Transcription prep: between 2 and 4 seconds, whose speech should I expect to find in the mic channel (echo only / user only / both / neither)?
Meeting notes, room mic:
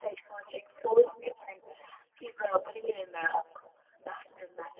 echo only